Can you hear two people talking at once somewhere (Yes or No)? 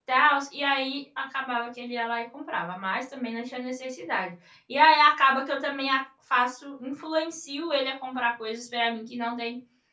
No